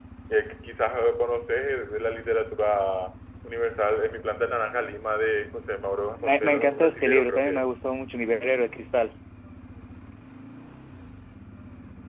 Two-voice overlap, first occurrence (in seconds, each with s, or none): 6.2 s